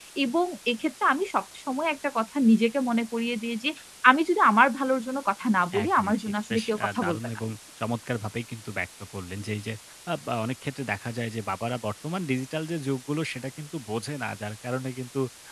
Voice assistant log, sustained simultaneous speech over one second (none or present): present